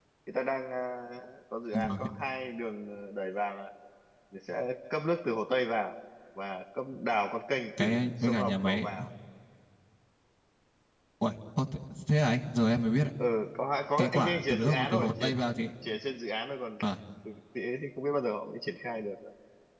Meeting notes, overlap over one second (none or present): present